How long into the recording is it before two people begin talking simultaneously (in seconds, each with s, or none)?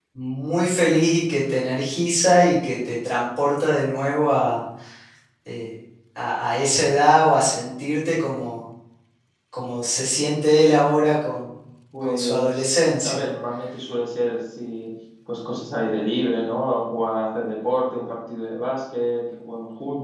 12.0 s